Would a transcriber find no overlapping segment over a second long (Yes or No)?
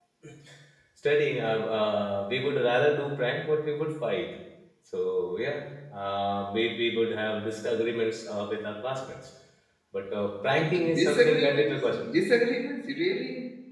No